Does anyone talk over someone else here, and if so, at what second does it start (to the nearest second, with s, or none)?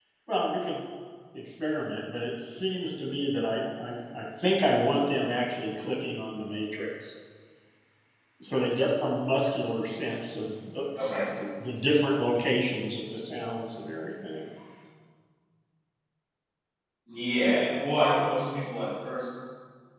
none